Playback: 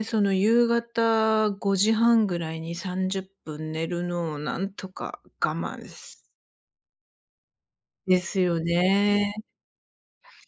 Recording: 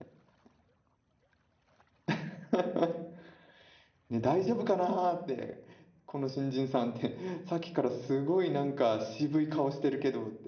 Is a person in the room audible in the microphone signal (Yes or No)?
Yes